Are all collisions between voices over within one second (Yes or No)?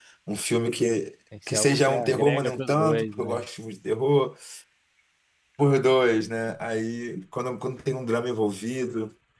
No